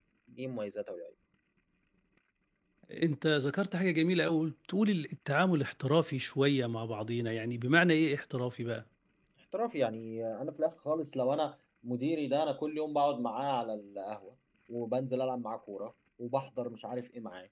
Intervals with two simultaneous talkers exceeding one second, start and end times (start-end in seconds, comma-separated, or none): none